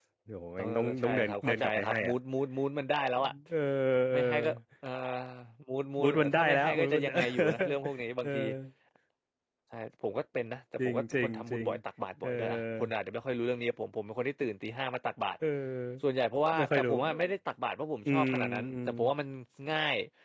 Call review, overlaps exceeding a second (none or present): present